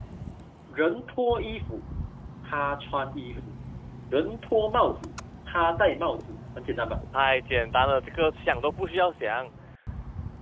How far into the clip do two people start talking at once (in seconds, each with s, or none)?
none